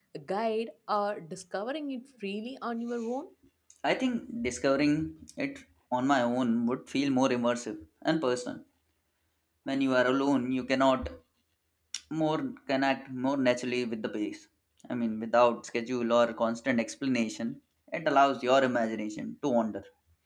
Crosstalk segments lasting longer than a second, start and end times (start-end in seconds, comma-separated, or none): none